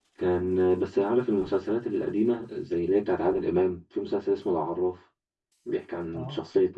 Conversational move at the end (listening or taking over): listening